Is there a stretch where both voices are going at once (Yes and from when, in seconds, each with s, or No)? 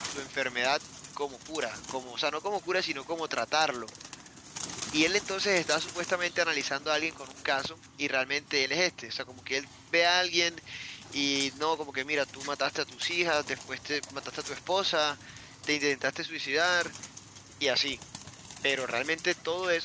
No